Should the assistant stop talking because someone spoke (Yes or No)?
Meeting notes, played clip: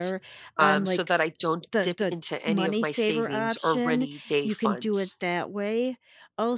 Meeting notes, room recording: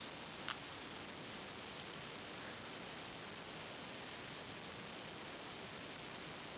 No